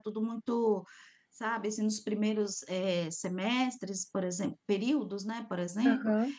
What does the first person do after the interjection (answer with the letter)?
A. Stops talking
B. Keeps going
B